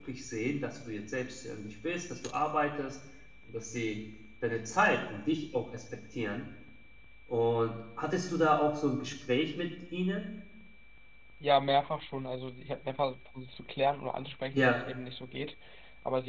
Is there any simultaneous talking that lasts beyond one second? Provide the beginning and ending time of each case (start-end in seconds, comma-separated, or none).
none